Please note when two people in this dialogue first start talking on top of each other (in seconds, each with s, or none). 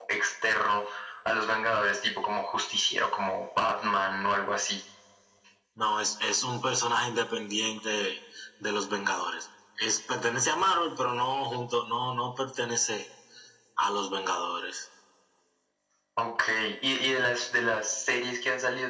none